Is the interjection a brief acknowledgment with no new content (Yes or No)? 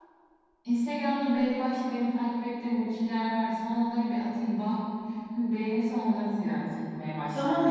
No